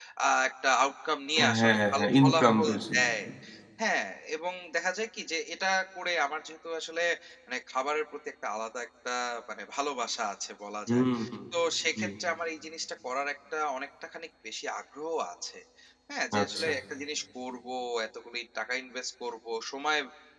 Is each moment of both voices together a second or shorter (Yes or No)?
No